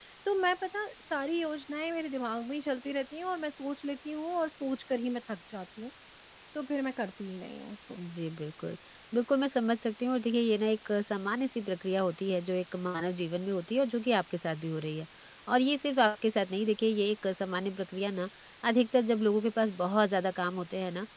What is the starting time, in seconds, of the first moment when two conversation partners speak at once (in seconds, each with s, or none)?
none